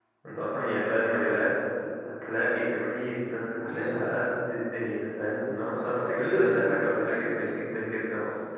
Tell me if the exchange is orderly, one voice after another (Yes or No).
No